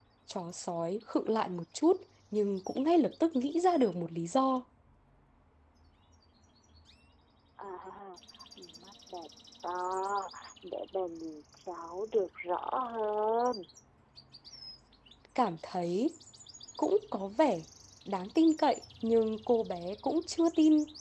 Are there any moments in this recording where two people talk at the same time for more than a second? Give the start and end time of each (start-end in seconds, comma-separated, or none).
none